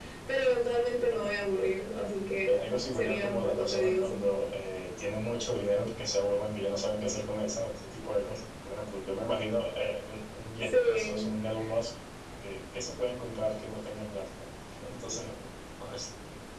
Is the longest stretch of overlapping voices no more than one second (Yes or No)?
No